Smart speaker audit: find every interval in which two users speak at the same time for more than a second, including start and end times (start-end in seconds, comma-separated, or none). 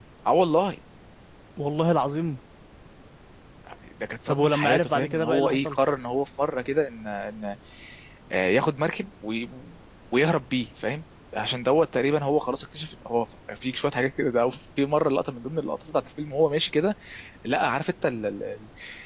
4.3-5.8